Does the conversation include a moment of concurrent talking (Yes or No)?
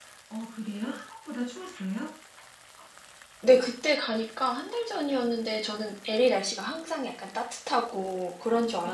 No